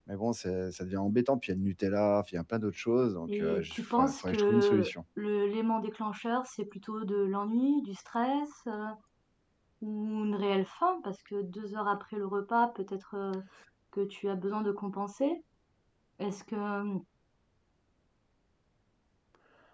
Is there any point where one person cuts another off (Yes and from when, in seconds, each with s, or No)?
Yes, from 3.3 s